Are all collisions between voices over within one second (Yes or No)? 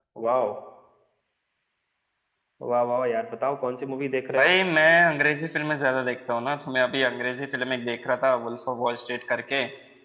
Yes